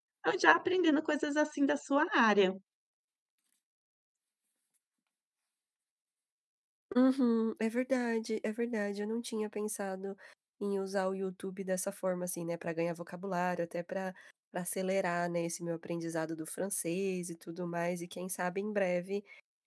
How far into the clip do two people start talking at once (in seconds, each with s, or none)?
none